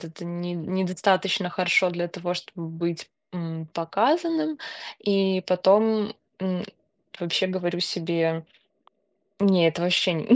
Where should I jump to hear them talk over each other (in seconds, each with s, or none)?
none